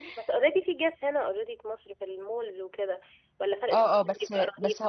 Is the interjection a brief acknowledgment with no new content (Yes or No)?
No